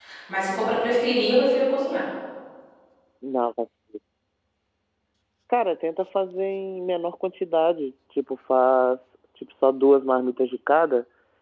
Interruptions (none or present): none